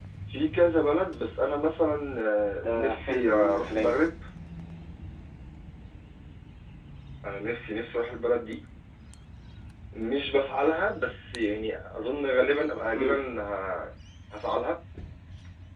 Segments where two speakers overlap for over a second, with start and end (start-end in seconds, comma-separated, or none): 2.6-3.9